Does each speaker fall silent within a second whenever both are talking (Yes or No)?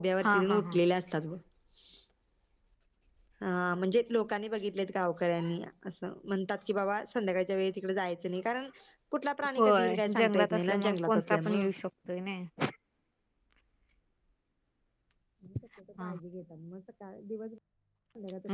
No